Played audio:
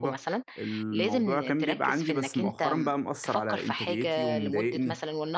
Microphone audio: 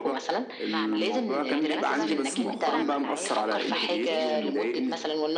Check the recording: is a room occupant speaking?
Yes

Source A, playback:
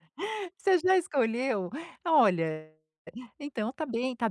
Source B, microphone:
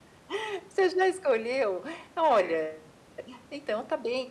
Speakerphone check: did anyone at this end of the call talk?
Yes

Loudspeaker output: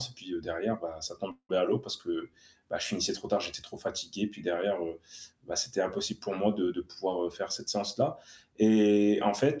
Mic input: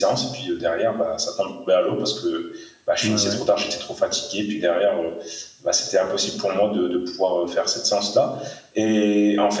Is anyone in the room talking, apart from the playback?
Yes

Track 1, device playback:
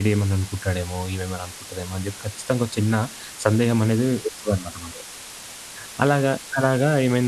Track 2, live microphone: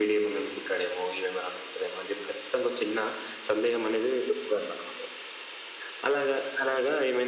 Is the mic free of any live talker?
Yes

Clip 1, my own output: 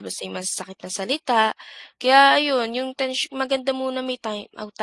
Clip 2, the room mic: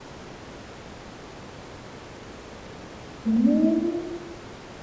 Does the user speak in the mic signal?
Yes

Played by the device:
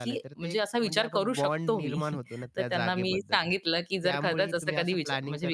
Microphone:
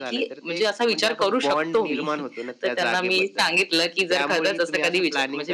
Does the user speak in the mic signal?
No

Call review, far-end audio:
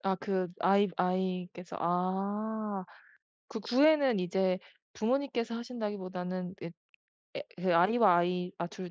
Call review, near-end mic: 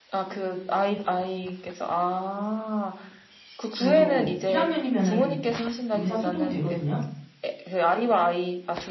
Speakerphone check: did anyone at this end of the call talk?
Yes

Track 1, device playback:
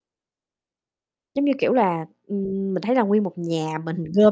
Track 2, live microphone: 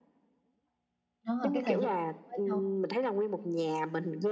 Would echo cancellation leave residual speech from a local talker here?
Yes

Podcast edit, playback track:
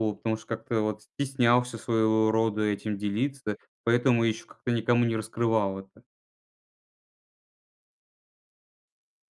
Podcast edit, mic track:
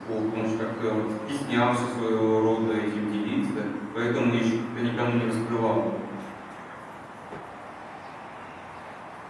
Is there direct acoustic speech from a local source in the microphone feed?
No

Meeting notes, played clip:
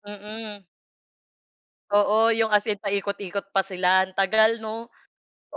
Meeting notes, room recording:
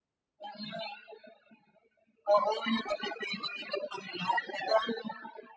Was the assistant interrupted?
No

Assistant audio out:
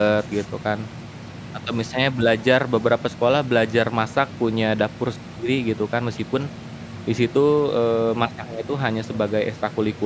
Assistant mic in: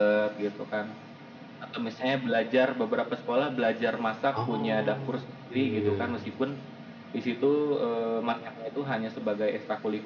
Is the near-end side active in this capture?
Yes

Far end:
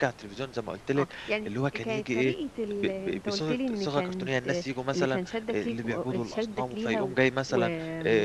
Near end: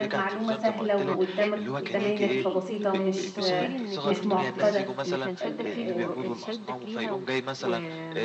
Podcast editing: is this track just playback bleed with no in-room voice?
No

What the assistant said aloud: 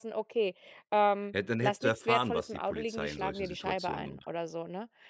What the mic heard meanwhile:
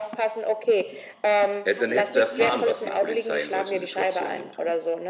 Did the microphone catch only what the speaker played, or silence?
No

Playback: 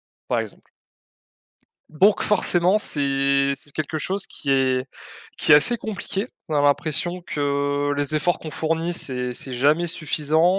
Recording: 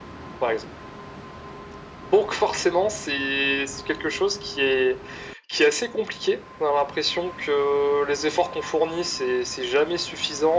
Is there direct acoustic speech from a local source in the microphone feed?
No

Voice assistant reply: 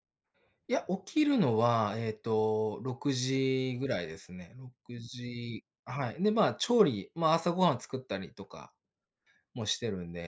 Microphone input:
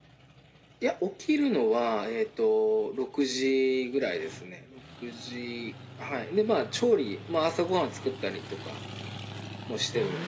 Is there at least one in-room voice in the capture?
No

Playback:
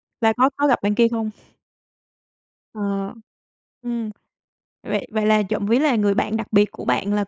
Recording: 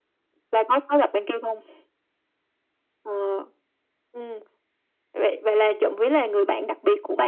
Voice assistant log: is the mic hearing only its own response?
Yes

